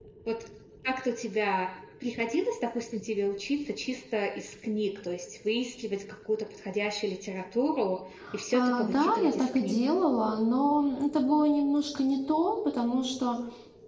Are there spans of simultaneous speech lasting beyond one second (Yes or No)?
Yes